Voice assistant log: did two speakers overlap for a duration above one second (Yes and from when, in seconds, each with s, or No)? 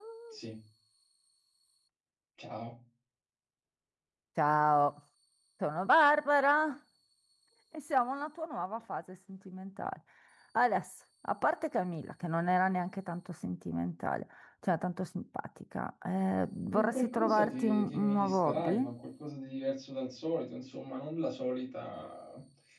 Yes, from 16.7 s